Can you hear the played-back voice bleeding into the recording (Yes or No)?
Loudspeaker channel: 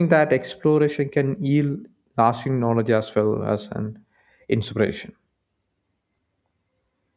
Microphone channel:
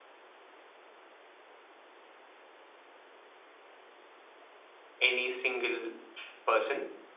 No